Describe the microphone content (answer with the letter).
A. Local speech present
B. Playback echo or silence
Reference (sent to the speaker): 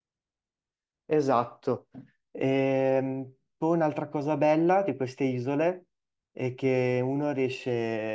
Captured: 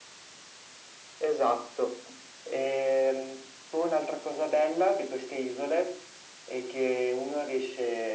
B